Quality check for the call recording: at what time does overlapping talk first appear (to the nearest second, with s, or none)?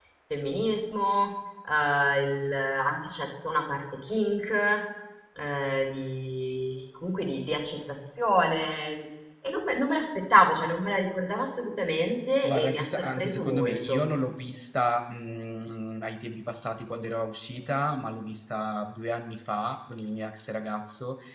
12 s